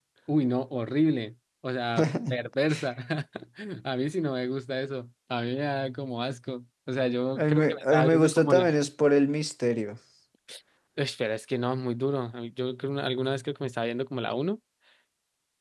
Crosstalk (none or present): present